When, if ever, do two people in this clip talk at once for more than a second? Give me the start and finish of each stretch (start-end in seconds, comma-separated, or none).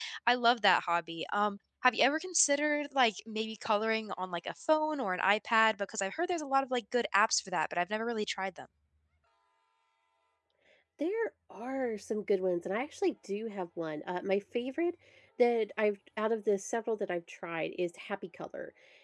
none